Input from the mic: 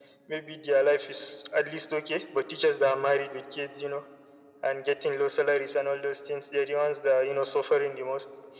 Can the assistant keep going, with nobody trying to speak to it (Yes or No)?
Yes